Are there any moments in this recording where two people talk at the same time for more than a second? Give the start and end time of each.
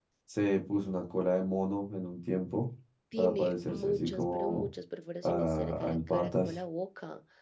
3.2-4.7, 5.2-6.5

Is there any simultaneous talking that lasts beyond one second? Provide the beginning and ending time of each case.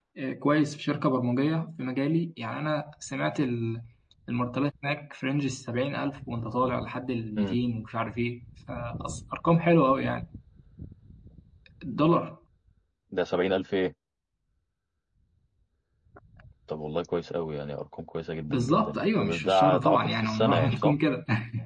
18.5-21.0

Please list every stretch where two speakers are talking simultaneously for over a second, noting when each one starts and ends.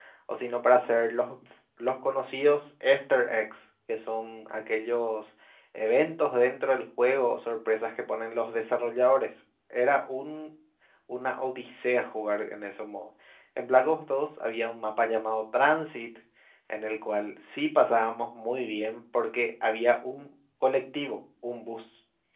none

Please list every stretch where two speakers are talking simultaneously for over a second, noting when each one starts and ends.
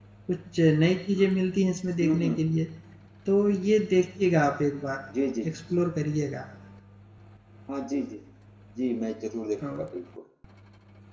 none

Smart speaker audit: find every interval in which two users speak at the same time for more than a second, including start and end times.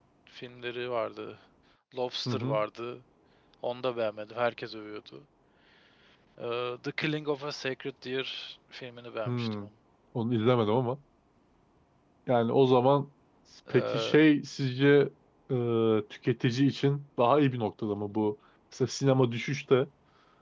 none

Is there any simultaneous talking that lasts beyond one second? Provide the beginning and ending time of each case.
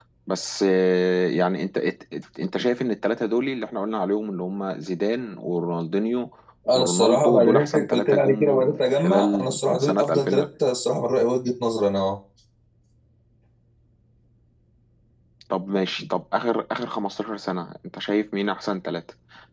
6.7-10.4

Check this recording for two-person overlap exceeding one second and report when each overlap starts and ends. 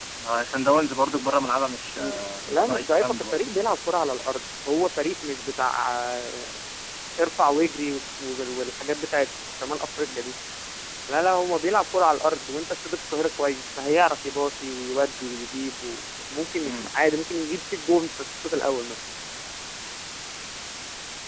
2.0-3.4

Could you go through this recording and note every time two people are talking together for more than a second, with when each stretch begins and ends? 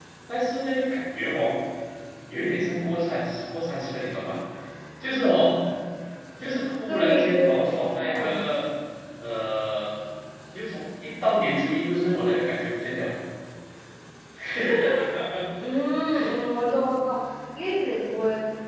6.9-8.4

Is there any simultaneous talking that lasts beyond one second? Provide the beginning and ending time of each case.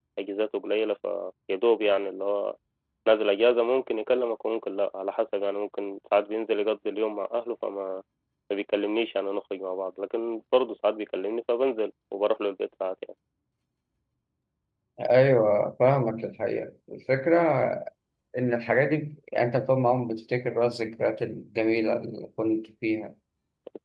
none

